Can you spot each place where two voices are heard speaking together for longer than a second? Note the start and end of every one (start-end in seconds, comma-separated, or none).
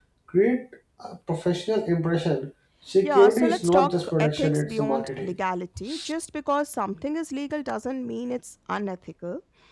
3.0-5.3